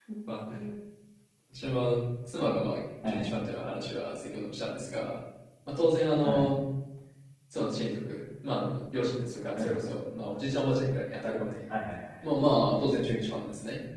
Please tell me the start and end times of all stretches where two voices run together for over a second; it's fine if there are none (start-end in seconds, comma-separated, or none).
none